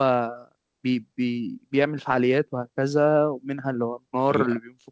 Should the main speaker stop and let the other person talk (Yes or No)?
No